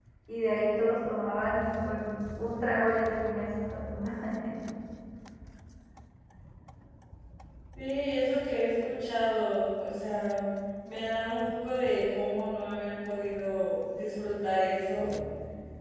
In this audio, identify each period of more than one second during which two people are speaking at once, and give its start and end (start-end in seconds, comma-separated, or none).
none